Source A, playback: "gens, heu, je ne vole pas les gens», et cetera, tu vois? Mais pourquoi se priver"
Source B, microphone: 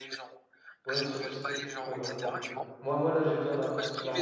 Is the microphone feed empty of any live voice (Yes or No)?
No